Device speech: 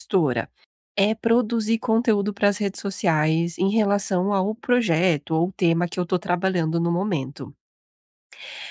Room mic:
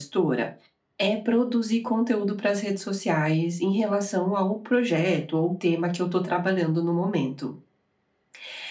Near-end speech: none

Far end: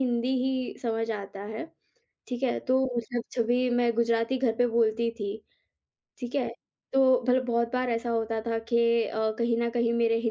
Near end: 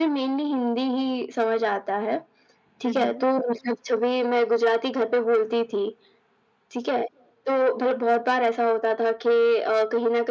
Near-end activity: present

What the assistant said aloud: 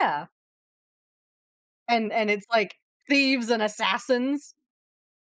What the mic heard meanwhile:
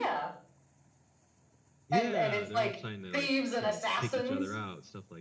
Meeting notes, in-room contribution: present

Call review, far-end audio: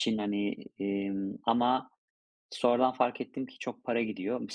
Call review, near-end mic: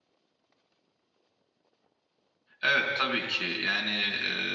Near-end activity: present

